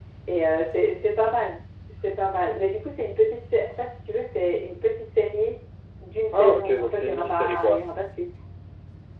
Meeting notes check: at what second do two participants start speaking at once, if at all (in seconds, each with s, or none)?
6.3 s